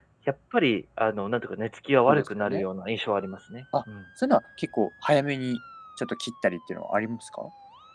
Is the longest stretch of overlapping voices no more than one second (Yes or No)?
Yes